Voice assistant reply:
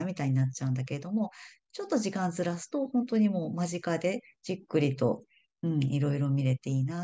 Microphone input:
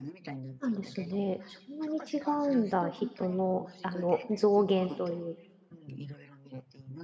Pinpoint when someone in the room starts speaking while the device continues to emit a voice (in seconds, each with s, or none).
0.6 s